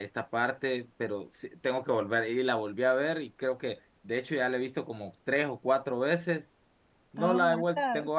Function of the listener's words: listening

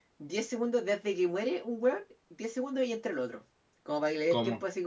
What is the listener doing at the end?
listening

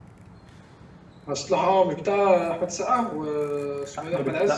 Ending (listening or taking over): taking over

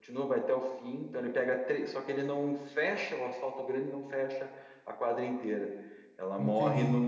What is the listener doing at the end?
listening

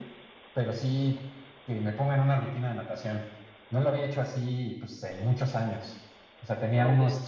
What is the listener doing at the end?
listening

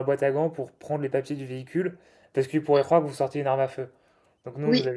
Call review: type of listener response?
listening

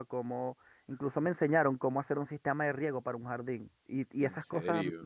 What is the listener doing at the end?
listening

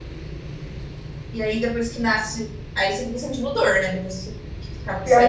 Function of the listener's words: taking over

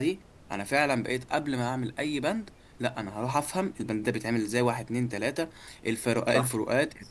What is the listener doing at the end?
listening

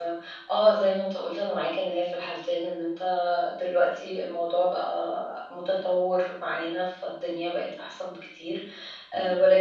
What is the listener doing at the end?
listening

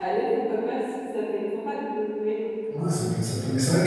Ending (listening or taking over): taking over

